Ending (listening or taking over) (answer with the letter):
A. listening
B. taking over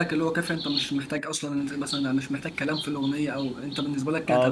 B